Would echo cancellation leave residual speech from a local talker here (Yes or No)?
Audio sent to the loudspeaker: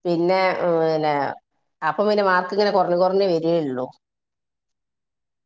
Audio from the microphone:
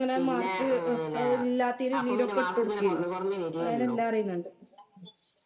Yes